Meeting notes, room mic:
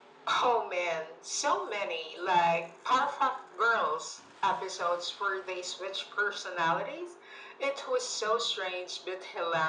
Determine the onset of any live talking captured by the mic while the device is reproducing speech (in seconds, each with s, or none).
none